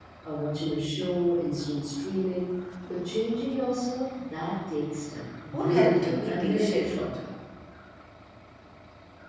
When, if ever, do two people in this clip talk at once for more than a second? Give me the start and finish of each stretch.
5.5-7.0

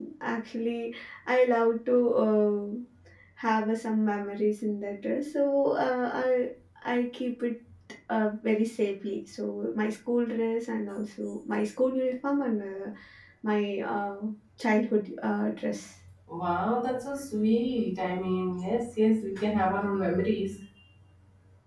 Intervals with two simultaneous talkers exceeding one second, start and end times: none

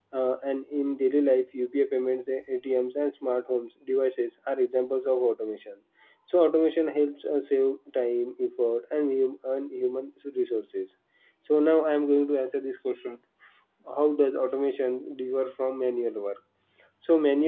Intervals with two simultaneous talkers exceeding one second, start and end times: none

